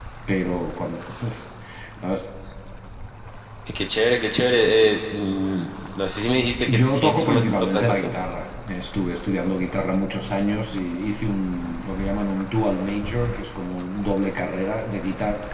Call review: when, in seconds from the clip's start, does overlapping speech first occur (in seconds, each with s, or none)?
6.6 s